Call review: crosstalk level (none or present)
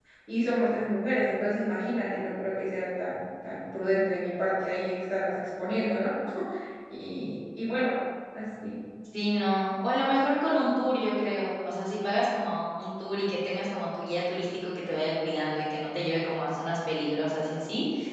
none